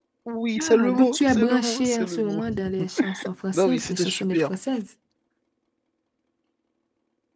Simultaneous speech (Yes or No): Yes